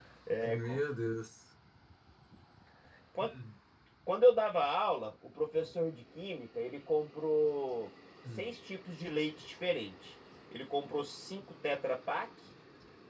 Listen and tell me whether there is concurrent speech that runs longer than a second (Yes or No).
No